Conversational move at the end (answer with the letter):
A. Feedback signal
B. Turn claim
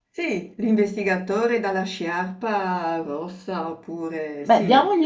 B